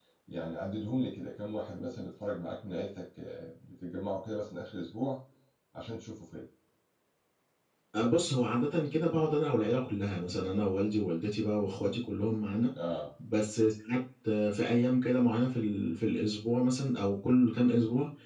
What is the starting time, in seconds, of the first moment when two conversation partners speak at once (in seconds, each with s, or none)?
none